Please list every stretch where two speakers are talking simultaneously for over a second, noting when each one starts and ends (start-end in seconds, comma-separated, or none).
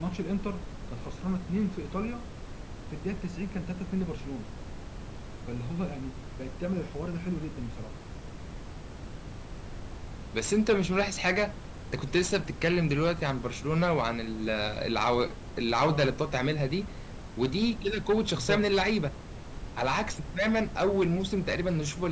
none